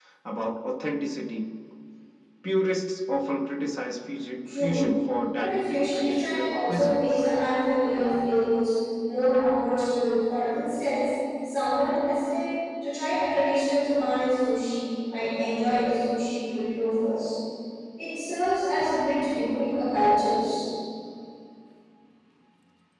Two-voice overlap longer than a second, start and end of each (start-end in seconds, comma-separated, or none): 5.4-7.2